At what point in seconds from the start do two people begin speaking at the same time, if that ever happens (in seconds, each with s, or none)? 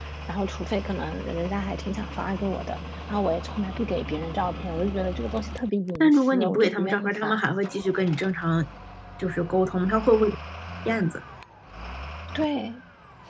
6.0 s